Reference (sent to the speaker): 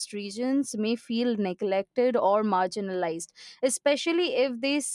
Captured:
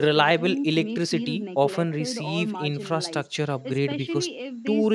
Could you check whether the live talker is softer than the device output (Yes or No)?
No